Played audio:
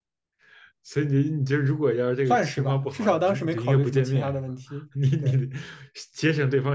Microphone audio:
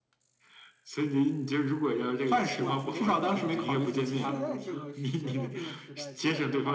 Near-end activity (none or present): present